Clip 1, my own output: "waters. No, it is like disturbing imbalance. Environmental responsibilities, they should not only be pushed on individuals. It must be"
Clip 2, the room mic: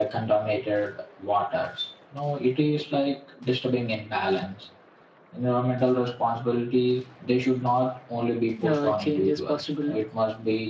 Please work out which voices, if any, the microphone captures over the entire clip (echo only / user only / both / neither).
both